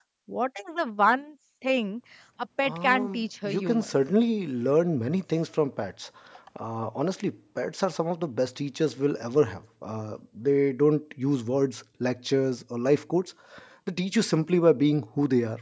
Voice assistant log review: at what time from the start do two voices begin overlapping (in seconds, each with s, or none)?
2.6 s